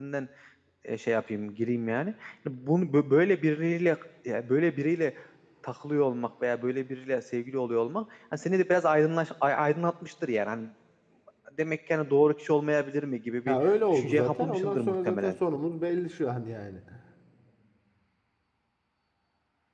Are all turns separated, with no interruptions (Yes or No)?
No